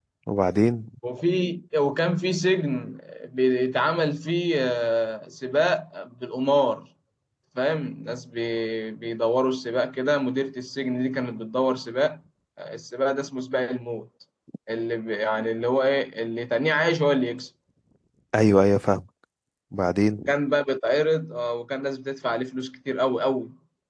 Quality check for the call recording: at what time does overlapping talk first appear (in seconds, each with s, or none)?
none